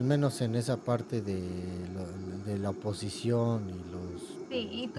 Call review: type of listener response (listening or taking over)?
taking over